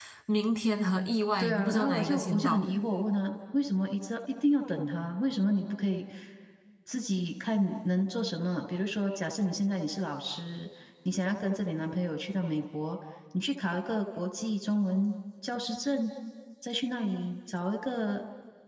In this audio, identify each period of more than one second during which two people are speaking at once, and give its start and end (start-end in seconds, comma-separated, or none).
1.4-2.7